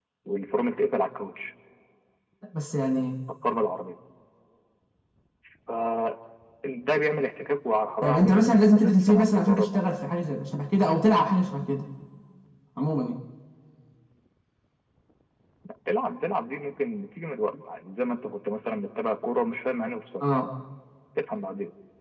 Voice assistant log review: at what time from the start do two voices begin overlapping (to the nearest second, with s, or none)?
8 s